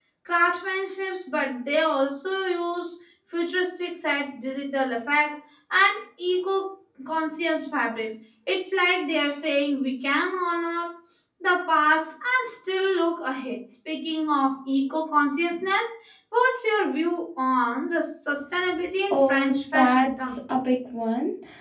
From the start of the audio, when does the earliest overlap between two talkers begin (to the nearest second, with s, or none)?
19 s